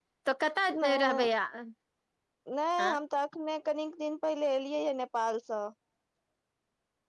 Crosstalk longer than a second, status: none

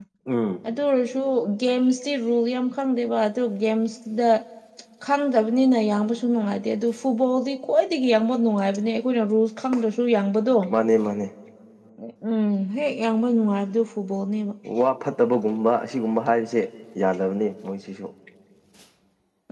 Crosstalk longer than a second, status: none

